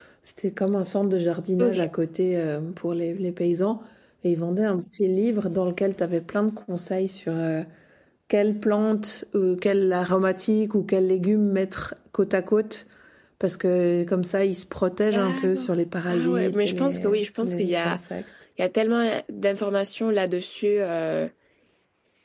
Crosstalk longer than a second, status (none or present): present